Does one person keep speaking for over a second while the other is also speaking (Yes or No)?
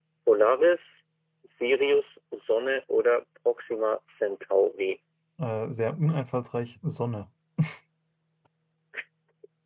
No